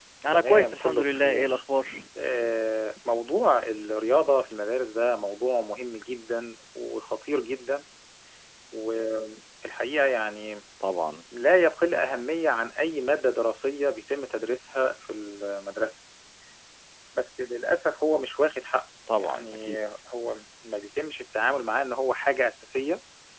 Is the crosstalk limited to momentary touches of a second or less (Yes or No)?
No